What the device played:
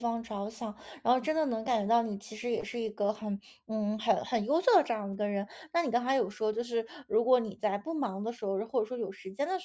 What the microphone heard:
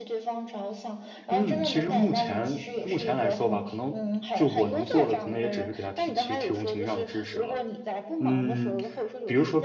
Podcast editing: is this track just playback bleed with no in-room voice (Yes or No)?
No